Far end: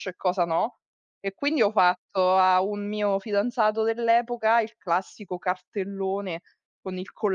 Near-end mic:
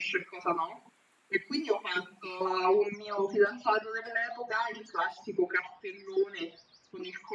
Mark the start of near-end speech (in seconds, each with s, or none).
none